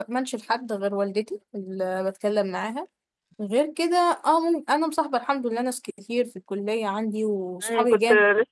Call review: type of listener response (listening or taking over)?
taking over